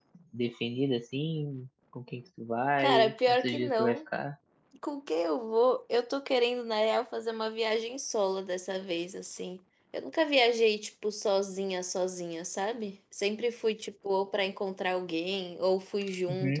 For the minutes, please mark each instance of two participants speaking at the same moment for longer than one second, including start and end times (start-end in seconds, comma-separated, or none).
2.8-4.0